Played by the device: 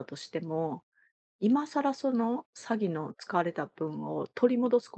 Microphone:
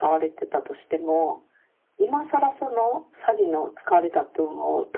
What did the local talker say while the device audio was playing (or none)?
none